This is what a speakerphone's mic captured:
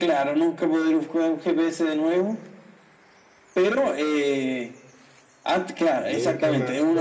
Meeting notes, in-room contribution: present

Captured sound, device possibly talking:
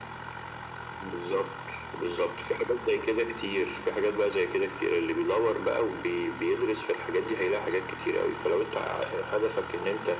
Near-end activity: none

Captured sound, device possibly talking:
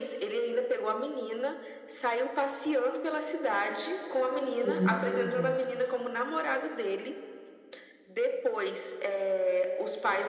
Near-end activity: present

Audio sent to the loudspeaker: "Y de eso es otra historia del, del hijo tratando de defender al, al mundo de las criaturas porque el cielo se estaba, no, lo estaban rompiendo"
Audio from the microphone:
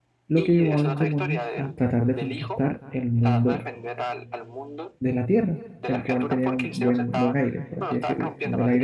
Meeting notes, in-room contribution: present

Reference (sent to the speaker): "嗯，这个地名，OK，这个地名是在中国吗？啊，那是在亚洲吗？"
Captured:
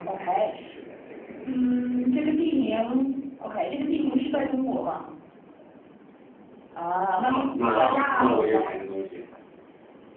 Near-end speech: present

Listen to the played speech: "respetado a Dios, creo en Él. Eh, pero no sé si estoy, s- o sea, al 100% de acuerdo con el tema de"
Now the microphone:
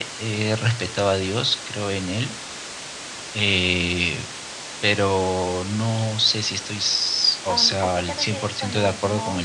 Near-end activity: present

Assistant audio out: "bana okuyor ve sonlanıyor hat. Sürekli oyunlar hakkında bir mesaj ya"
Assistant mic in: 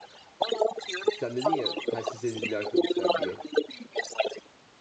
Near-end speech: present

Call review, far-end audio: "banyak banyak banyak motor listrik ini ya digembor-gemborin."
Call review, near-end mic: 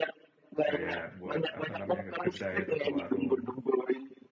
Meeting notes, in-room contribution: present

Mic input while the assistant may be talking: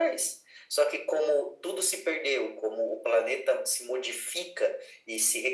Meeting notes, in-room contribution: none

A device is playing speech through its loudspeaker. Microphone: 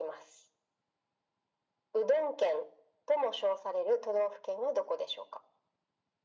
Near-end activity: none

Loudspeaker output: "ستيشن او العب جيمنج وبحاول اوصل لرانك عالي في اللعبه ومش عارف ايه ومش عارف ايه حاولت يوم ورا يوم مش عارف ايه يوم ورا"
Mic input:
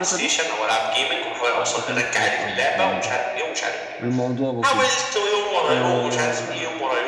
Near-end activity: present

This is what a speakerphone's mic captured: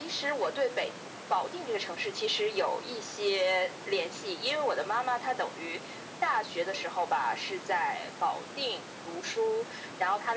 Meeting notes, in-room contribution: none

